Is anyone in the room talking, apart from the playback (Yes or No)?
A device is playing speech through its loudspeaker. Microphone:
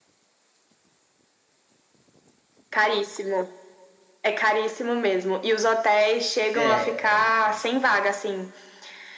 Yes